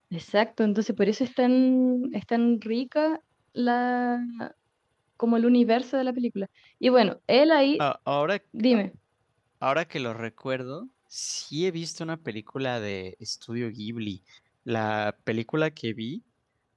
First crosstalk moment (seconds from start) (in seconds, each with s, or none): none